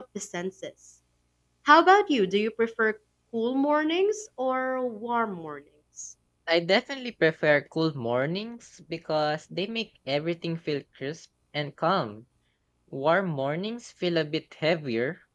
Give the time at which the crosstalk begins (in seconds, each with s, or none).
none